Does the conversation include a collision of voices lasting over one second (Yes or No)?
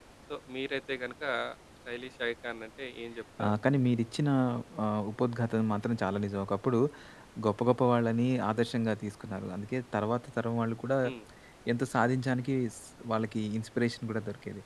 No